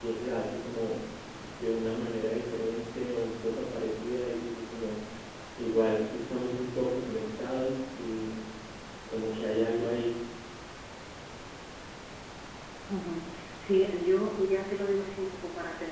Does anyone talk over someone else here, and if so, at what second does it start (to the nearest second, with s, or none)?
none